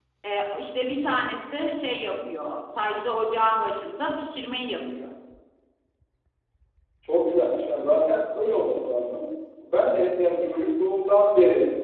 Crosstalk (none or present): none